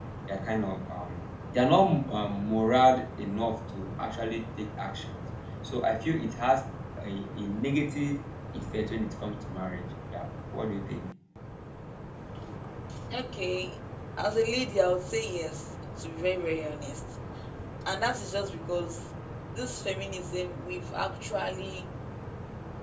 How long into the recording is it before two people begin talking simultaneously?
none

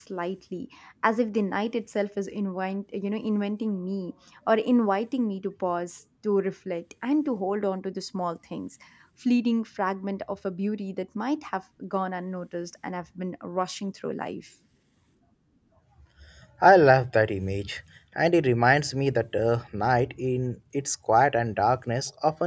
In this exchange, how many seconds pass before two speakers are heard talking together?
none

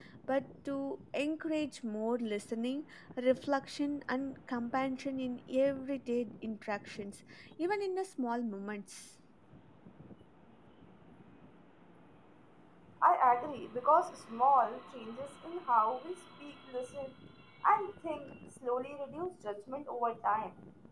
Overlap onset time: none

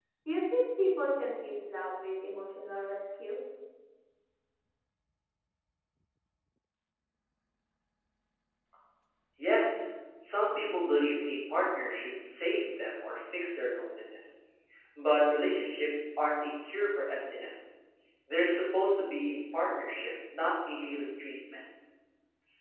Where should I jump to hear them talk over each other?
none

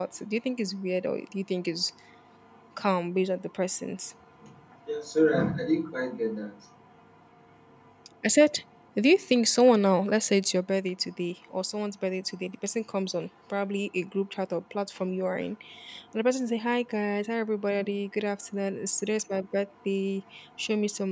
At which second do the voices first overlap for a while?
none

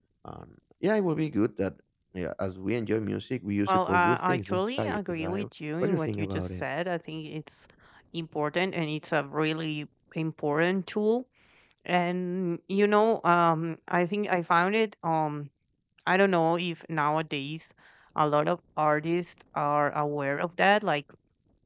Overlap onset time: 3.7 s

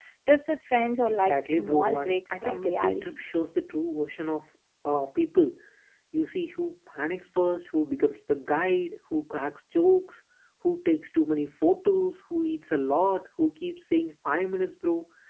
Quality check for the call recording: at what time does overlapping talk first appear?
1.1 s

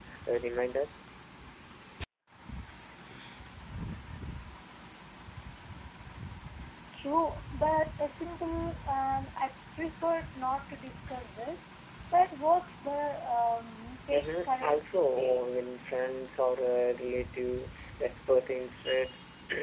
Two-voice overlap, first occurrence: 14.1 s

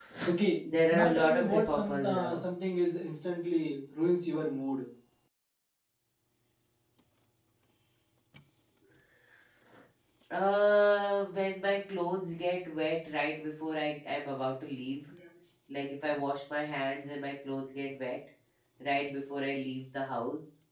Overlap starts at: 0.9 s

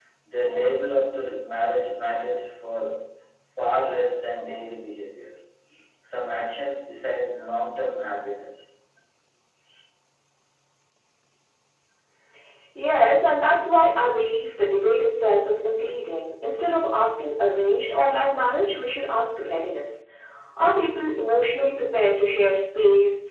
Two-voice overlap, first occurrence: none

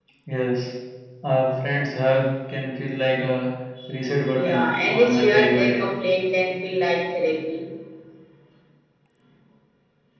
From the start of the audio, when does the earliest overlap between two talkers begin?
4.3 s

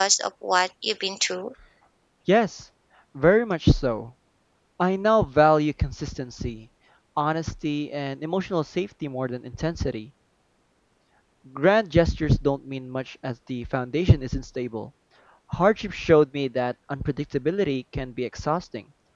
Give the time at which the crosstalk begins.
none

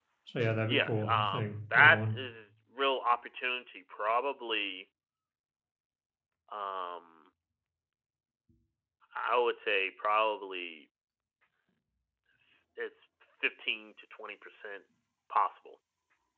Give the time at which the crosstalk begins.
0.6 s

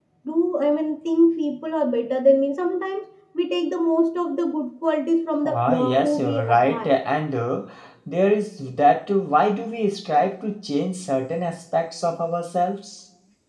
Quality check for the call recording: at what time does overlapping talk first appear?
5.4 s

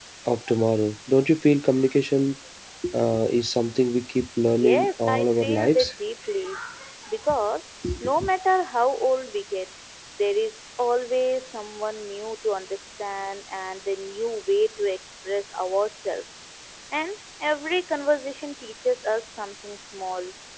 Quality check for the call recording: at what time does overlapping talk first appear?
4.5 s

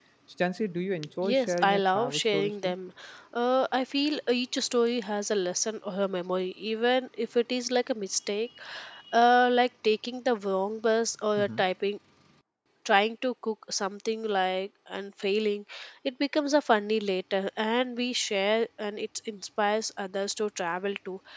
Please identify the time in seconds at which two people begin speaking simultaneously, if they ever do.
1.2 s

